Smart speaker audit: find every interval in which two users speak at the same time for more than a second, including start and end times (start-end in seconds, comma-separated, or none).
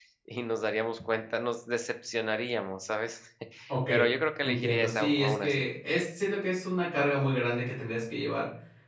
4.4-5.6